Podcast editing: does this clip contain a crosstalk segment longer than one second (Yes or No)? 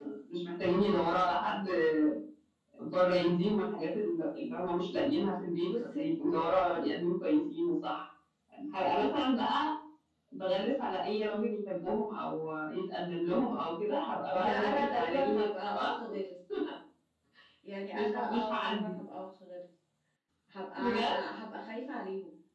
Yes